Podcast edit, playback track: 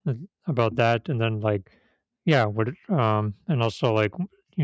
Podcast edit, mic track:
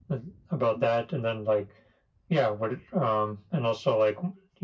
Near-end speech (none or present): none